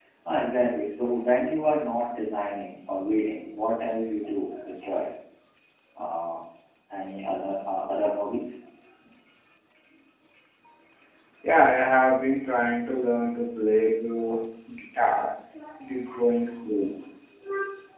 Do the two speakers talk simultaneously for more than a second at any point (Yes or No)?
No